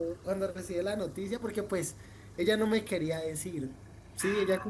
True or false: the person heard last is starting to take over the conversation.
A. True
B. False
B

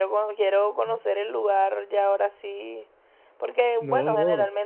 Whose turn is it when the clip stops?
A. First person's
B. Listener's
A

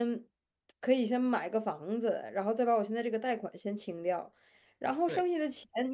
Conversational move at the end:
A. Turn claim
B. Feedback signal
B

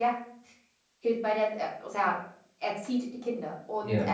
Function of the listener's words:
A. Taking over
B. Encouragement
B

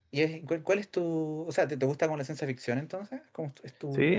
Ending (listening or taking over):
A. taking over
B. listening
A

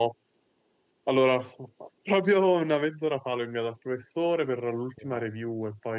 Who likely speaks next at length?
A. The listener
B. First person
B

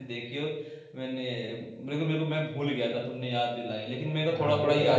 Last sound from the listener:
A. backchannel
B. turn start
B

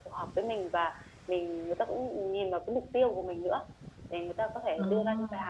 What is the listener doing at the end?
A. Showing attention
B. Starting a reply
A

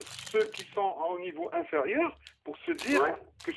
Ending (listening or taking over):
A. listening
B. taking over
A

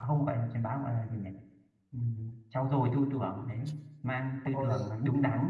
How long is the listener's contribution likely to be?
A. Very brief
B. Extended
A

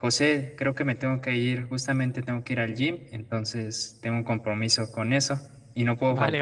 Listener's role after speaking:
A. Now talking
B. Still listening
A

